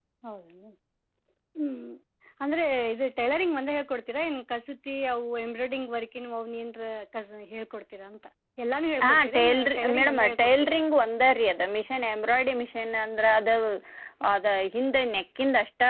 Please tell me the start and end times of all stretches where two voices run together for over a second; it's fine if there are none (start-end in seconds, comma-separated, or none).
9.0-10.8